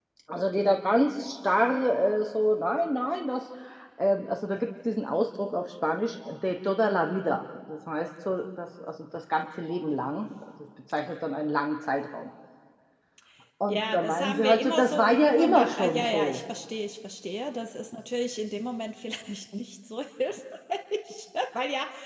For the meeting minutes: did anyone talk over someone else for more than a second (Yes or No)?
Yes